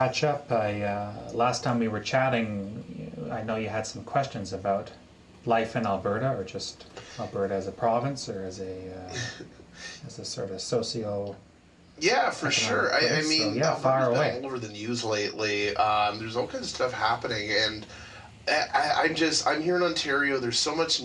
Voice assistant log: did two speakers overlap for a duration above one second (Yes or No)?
Yes